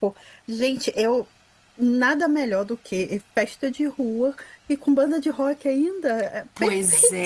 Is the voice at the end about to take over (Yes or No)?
Yes